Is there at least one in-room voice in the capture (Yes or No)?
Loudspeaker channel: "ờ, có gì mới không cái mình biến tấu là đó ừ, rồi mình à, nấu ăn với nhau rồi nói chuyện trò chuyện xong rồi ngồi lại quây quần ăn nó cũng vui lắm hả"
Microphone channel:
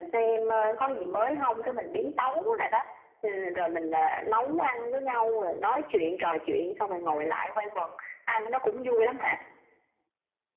No